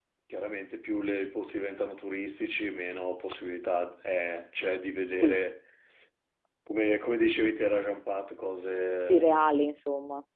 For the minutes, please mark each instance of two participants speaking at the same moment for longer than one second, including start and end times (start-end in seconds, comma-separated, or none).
none